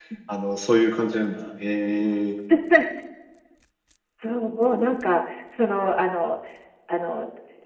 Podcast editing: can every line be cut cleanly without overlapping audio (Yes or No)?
Yes